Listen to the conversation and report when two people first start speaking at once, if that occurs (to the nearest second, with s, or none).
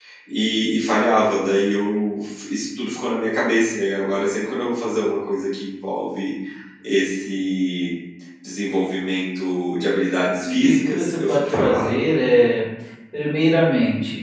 10 s